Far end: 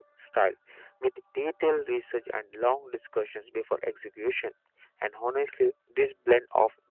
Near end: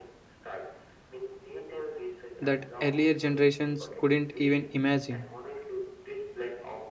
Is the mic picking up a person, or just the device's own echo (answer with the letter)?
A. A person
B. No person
A